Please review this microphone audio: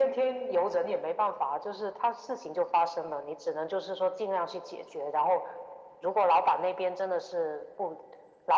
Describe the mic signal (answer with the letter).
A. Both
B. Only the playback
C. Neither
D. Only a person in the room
B